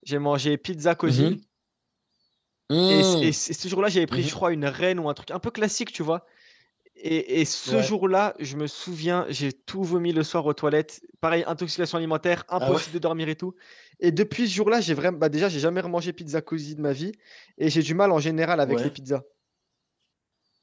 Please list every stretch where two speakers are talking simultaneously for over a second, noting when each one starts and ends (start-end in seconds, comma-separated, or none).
none